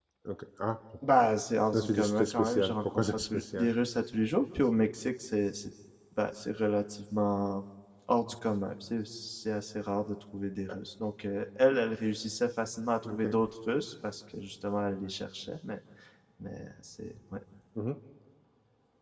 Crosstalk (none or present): present